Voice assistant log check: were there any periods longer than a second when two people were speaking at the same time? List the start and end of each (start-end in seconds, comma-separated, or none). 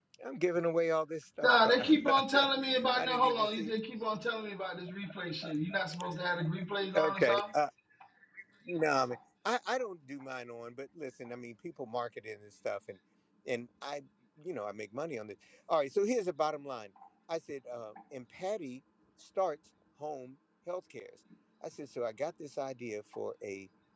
1.4-3.7